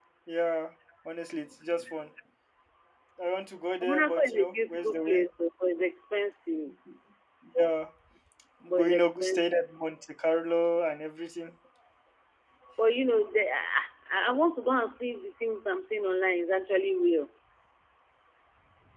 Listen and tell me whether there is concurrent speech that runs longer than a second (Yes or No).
Yes